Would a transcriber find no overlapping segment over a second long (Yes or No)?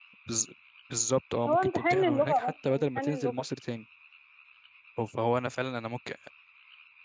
No